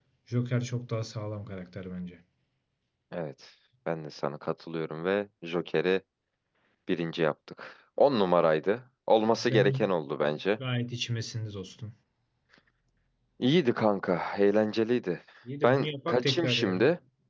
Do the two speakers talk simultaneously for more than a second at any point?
Yes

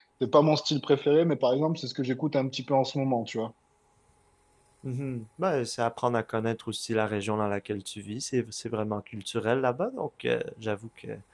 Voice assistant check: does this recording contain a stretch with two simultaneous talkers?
No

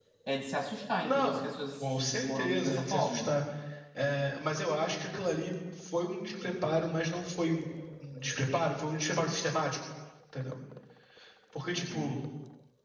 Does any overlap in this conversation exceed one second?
Yes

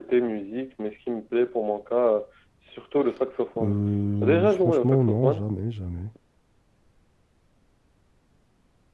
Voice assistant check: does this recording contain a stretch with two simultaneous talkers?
Yes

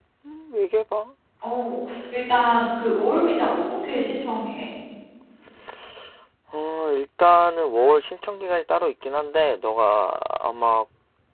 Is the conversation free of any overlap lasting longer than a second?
Yes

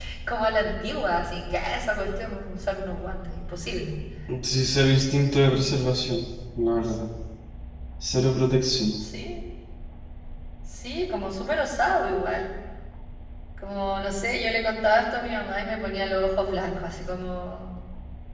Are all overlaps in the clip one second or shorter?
Yes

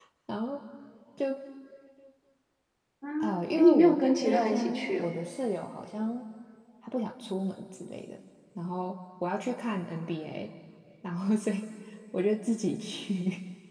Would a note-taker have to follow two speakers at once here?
Yes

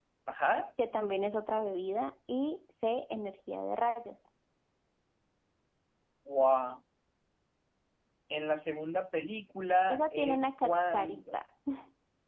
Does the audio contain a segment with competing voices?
Yes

